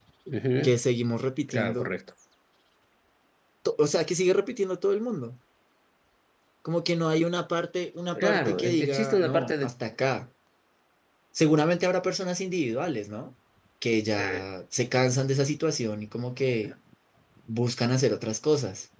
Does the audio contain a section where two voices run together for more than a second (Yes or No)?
Yes